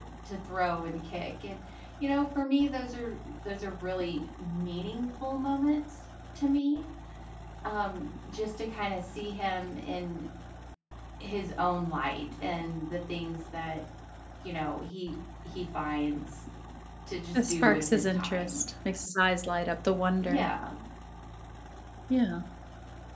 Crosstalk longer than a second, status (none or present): present